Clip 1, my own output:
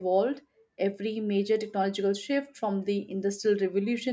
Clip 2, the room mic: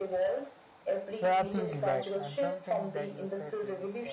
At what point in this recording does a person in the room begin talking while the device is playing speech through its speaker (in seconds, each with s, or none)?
1.2 s